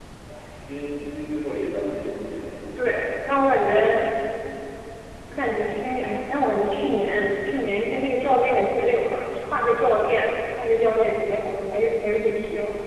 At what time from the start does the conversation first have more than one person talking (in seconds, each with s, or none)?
none